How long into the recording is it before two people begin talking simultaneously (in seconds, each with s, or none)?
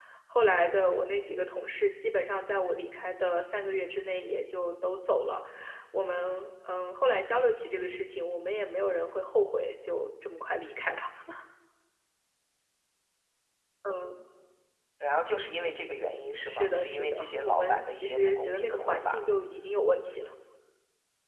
16.5 s